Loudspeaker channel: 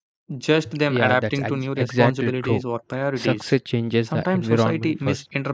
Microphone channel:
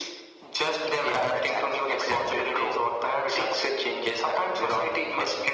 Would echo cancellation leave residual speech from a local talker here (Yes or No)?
No